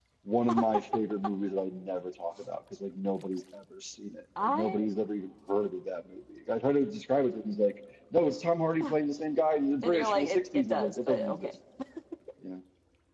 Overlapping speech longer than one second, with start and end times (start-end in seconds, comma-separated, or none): 9.8-11.5